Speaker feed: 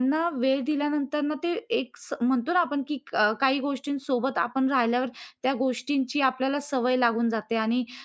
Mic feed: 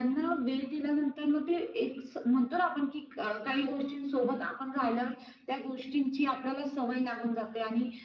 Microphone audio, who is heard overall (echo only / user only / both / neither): echo only